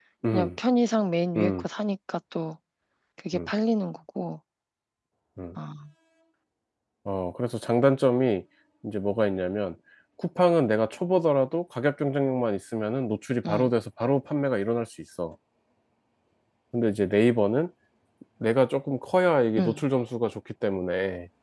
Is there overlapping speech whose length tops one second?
No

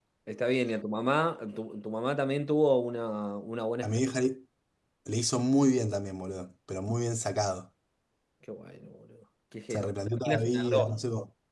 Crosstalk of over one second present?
Yes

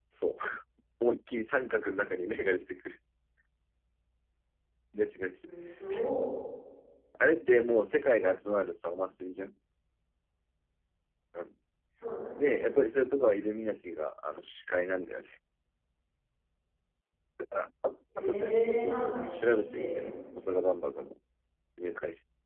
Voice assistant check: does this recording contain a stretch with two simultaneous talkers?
Yes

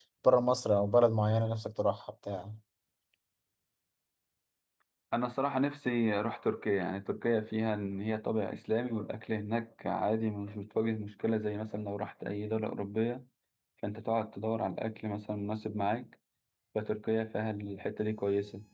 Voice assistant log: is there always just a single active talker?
Yes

